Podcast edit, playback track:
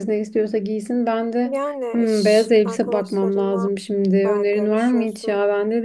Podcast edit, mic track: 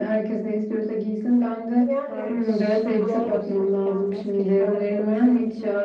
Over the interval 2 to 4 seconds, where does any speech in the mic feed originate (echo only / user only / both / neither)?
both